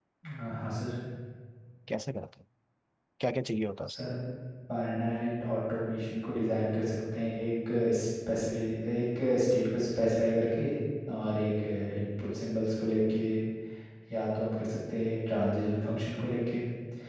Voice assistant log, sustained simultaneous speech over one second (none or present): none